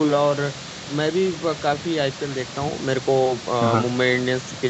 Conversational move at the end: listening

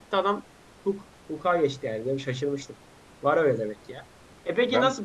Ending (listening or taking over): listening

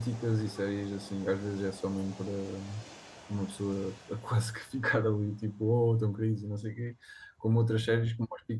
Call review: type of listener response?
listening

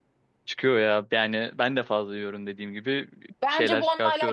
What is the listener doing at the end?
taking over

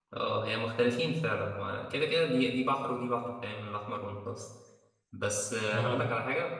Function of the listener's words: listening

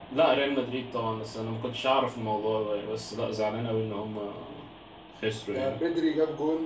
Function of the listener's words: taking over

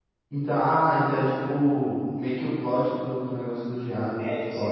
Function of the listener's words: taking over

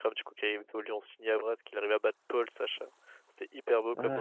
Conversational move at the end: taking over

